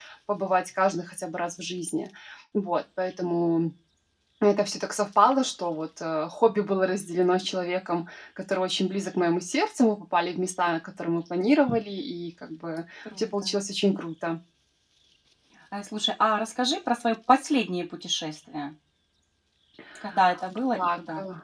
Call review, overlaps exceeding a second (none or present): none